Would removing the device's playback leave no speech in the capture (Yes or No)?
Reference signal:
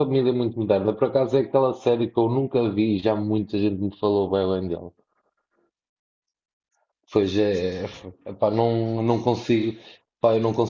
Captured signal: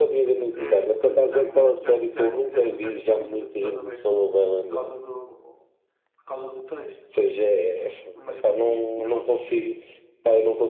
No